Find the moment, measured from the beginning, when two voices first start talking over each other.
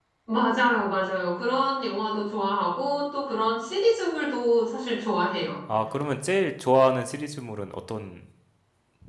none

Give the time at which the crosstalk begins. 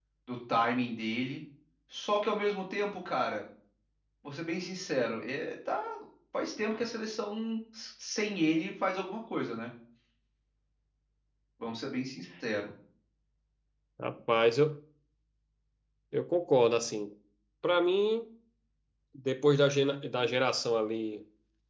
none

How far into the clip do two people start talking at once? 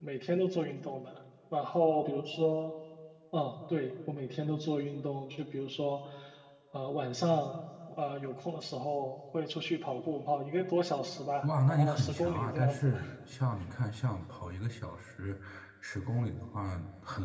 11 s

